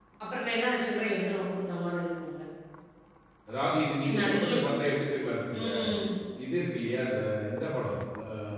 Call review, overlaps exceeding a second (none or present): none